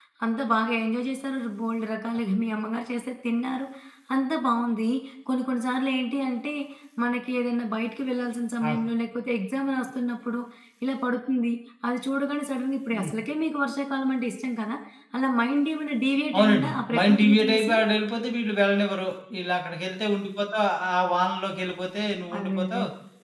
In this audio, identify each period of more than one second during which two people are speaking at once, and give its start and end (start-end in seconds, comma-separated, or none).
16.4-17.8